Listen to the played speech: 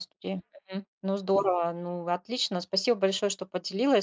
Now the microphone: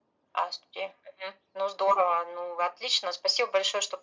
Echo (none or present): present